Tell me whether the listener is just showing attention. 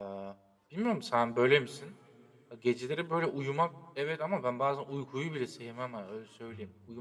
No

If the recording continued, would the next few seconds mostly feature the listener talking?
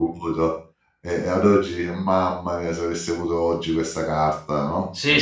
Yes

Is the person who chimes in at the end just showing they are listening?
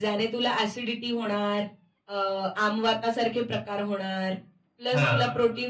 Yes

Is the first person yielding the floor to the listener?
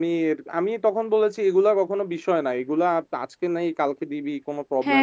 No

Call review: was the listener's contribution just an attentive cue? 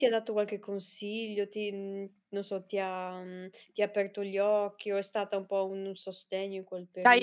No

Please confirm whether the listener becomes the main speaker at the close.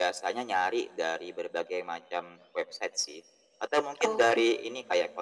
No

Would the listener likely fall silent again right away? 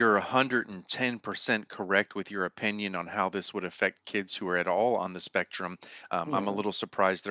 Yes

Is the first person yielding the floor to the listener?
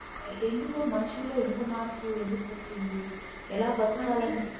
Yes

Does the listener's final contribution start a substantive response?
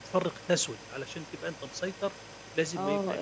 Yes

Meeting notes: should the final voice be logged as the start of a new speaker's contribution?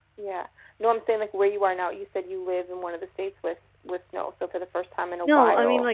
Yes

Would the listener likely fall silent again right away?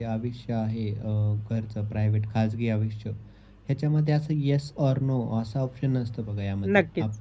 Yes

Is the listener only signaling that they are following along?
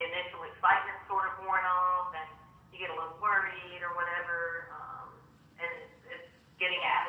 Yes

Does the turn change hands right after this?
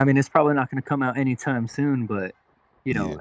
No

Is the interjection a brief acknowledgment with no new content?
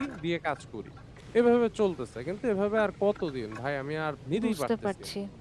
No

